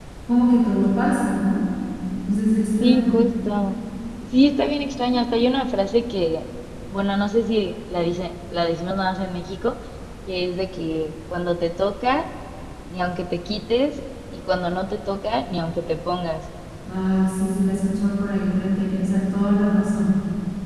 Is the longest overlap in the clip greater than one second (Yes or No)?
No